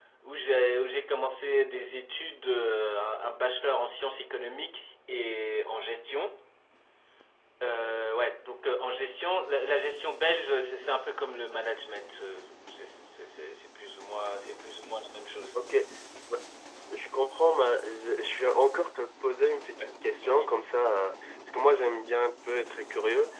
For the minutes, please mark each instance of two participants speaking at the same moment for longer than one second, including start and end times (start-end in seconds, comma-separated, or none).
none